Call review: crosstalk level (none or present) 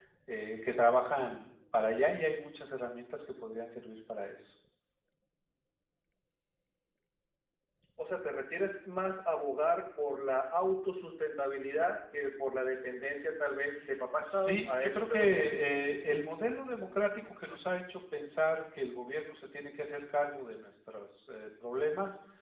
present